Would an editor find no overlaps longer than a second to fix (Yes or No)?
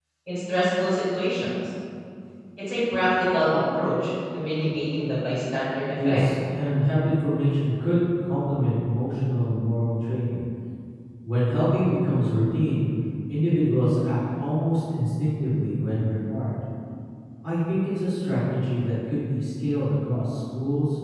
Yes